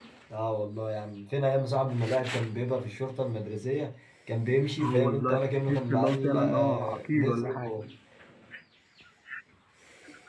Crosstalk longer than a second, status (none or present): present